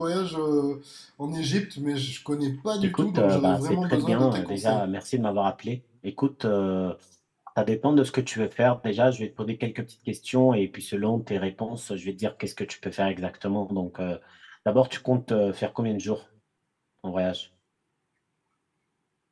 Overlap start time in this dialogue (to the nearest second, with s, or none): 3 s